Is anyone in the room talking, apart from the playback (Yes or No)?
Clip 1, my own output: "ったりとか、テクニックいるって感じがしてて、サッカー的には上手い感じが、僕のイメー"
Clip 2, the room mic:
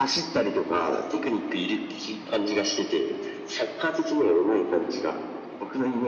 No